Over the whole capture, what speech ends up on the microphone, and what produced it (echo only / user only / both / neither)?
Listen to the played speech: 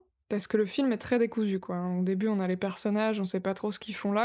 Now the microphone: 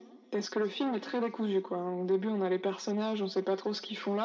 echo only